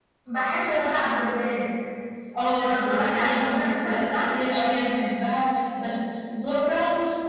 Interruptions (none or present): present